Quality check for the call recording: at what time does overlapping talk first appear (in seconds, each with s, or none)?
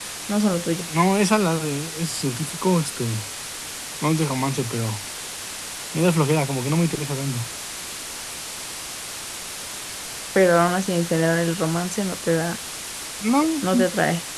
none